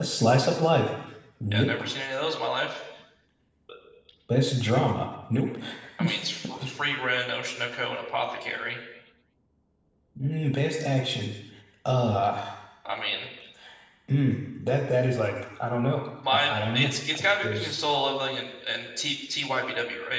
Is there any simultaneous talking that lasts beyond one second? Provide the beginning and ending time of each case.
16.3-17.7

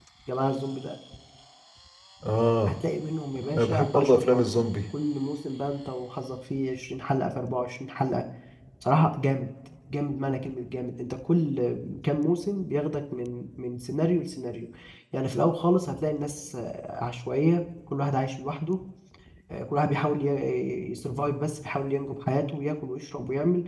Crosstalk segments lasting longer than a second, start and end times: 3.4-4.7

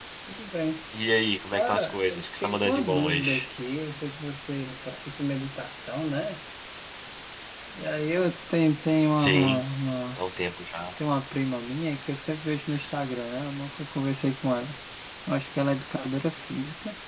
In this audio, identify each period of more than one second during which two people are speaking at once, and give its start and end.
1.5-3.5

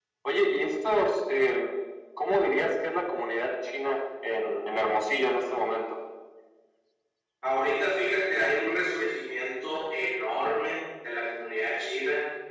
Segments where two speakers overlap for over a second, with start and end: none

